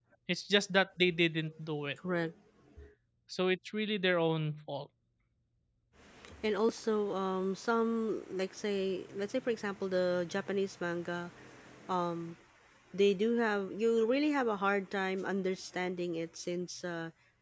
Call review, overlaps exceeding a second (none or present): none